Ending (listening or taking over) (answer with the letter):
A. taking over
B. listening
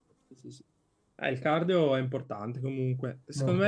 B